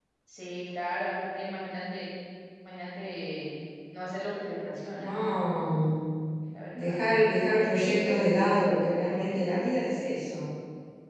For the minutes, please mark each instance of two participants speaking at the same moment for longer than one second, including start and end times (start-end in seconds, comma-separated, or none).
none